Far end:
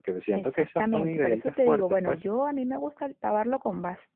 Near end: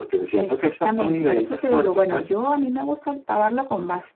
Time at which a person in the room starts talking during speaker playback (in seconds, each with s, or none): none